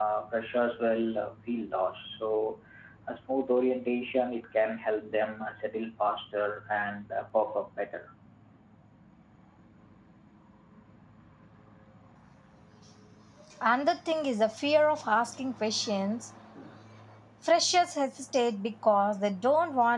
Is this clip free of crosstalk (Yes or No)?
Yes